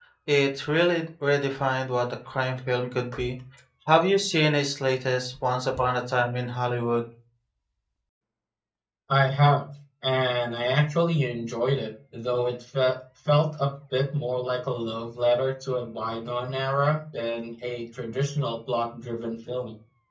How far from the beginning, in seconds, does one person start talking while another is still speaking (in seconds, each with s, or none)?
none